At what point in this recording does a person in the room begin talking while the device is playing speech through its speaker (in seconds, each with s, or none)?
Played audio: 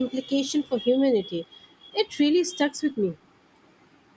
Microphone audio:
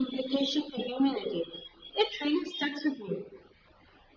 none